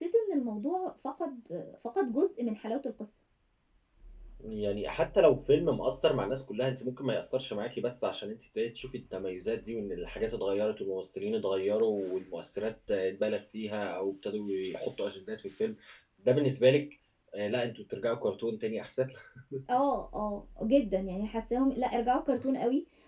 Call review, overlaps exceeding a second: none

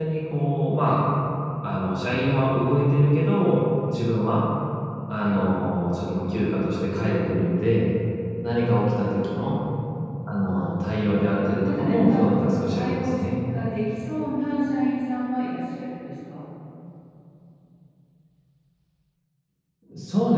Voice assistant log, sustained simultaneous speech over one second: present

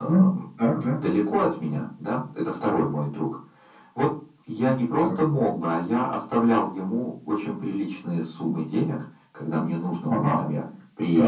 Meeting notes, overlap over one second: none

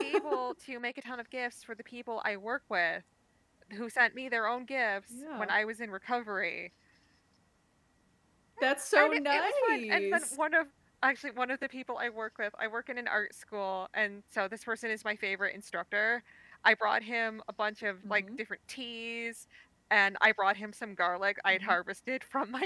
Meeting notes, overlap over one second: present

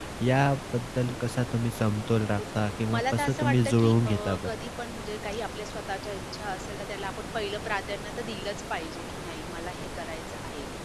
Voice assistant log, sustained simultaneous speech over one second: present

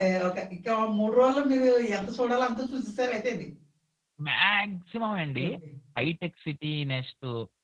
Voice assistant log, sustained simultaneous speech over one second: none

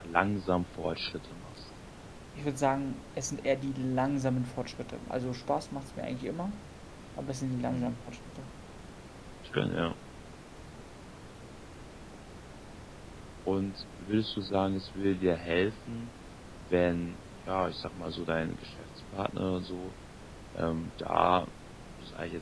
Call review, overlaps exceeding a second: none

